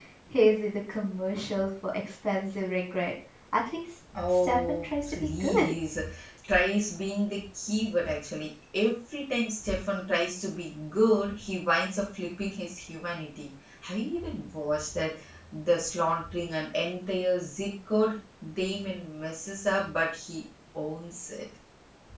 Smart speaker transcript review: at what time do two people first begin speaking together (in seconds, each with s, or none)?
4.1 s